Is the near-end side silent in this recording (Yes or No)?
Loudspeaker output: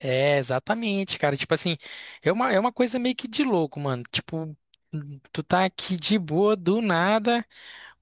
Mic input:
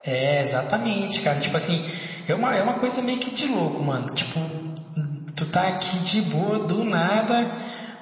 Yes